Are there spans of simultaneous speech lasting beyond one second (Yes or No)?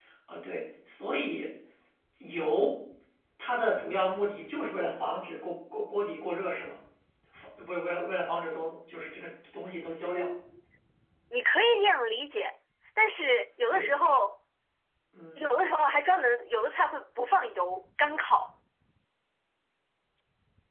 No